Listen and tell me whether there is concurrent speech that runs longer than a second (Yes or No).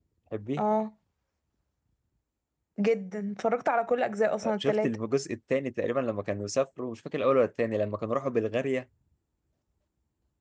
No